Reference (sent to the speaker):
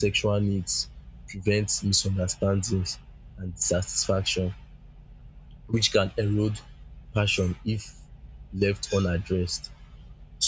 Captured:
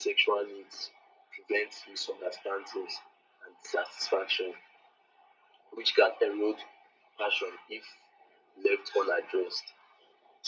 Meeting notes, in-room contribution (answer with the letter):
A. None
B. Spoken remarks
A